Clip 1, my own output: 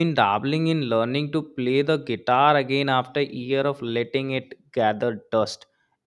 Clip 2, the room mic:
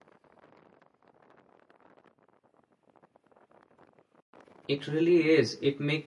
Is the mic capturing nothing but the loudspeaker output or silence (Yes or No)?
No